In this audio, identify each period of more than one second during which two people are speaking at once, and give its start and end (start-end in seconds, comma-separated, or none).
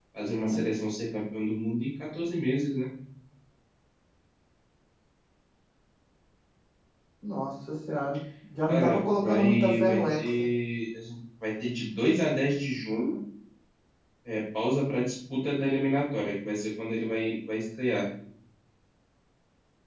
8.7-10.5